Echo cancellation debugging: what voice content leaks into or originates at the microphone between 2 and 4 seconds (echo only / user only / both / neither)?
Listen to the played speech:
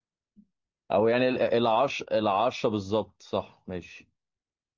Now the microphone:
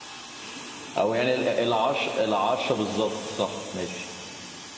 echo only